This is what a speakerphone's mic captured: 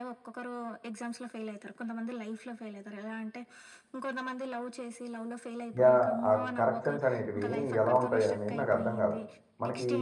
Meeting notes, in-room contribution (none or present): present